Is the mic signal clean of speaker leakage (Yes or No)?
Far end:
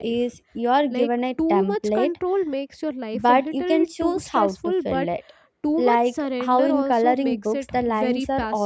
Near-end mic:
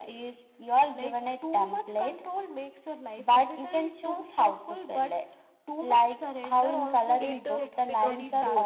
No